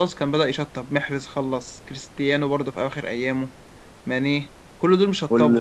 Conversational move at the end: taking over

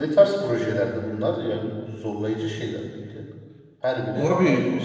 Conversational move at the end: taking over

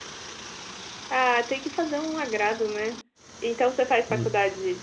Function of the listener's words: listening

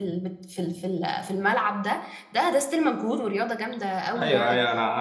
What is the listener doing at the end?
taking over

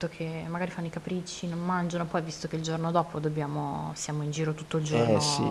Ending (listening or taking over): taking over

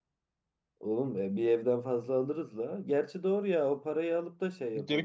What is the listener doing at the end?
taking over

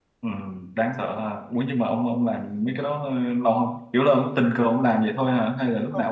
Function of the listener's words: taking over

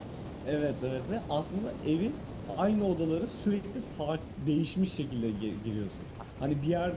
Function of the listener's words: listening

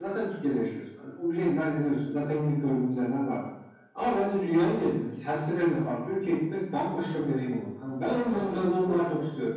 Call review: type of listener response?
taking over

